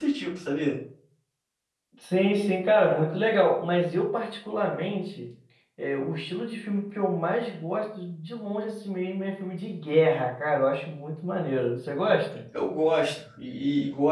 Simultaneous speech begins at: none

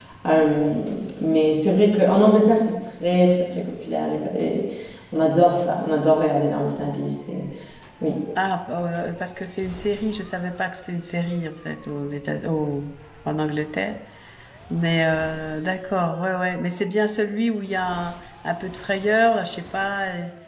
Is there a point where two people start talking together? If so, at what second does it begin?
none

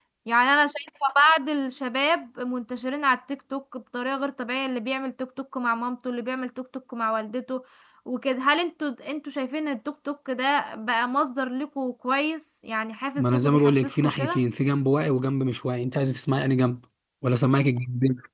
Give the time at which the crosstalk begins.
13.2 s

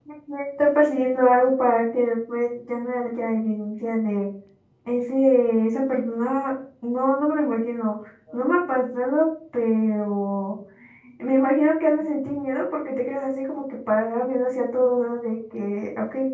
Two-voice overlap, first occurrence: none

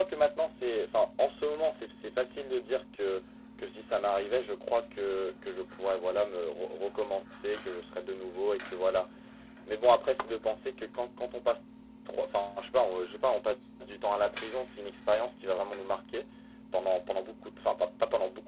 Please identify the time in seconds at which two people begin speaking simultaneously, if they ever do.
none

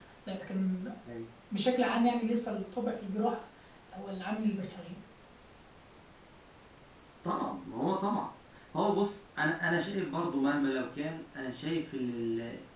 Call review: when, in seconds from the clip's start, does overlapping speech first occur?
none

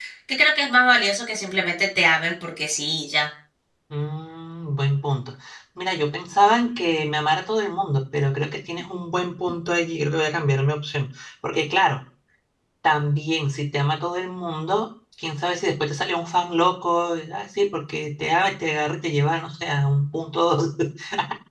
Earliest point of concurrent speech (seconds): none

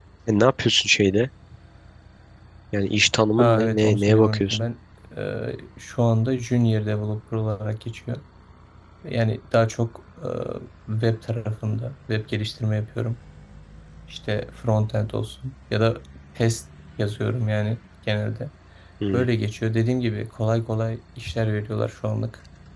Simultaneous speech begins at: 3.4 s

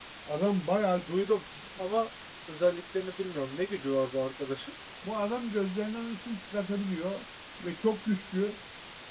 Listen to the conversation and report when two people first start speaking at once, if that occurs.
none

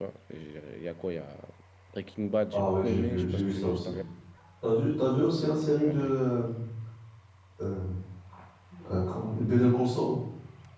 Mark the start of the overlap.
2.5 s

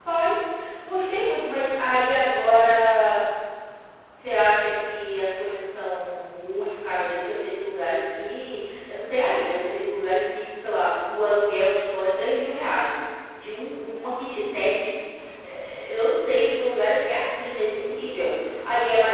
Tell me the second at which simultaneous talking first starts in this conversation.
none

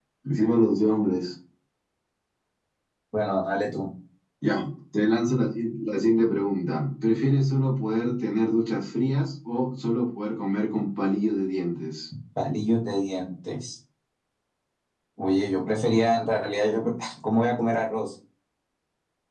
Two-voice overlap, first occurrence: none

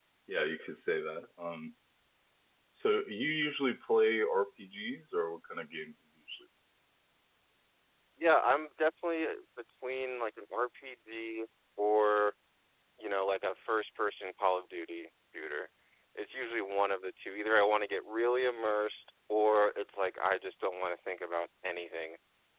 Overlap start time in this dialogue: none

